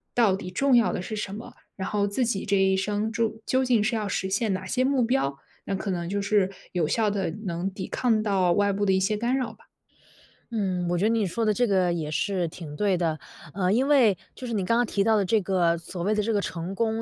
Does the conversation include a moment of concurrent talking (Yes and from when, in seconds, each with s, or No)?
No